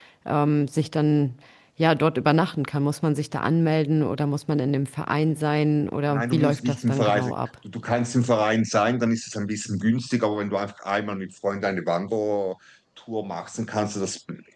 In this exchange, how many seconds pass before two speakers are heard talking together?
6.1 s

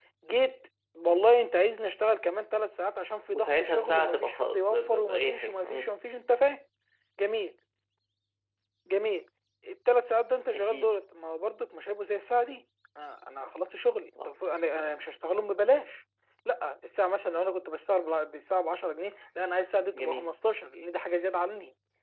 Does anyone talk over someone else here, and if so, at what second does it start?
3.3 s

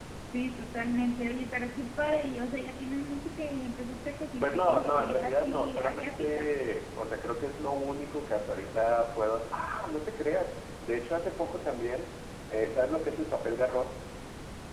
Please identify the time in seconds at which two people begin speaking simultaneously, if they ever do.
4.4 s

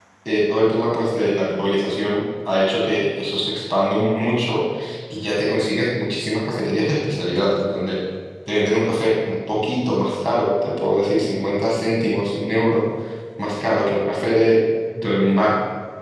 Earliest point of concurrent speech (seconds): none

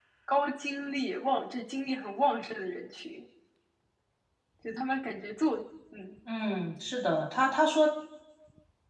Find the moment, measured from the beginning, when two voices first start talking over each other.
none

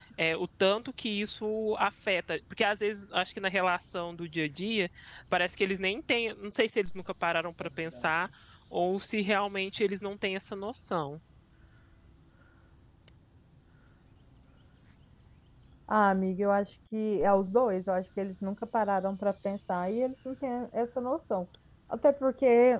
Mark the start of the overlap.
none

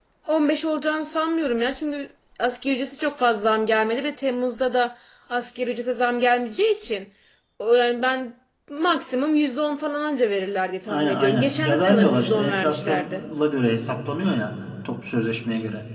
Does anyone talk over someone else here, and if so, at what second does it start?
10.9 s

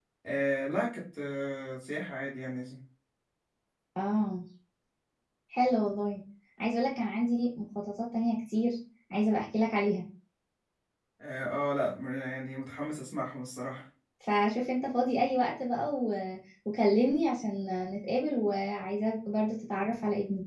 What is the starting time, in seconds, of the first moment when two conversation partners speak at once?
none

